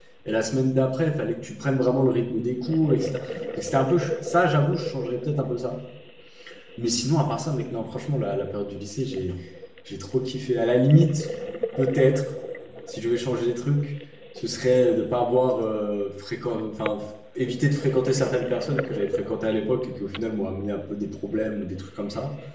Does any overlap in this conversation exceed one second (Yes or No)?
No